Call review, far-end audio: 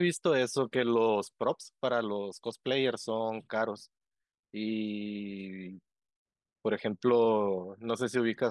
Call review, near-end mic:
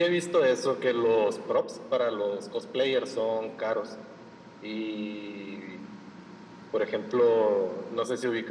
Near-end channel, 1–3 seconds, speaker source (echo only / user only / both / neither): echo only